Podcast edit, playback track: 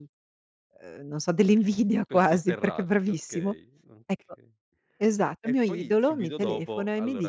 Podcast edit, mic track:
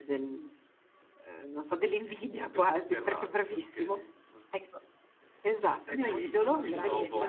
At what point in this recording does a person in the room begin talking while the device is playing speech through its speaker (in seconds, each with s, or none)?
6.0 s